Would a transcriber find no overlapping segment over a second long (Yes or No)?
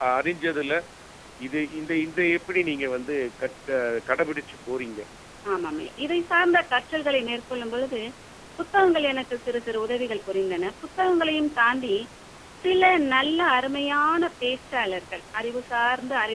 Yes